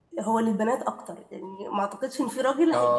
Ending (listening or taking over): listening